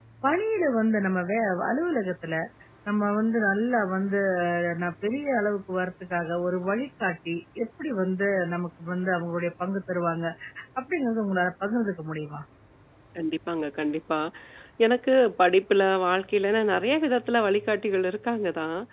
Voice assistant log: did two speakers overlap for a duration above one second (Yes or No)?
No